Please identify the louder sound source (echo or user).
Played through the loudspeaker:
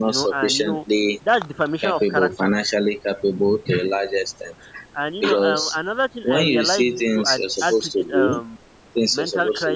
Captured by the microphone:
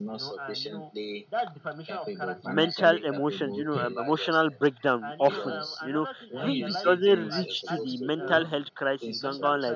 user